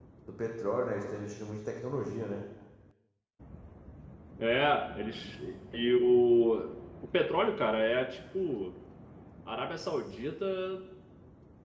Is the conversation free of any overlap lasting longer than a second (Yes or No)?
Yes